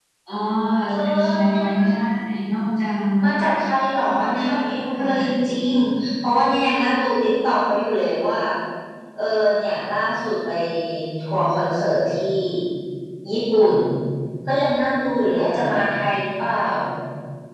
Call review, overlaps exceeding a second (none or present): present